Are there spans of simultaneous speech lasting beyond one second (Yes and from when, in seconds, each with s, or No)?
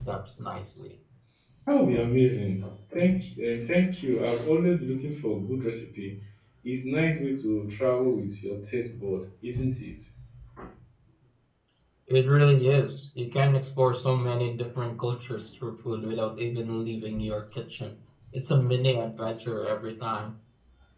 No